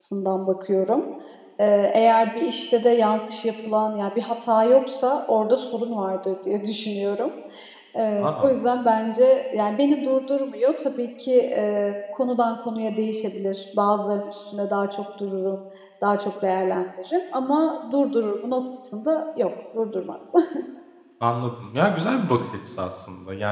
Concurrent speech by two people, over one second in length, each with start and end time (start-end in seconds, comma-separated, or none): none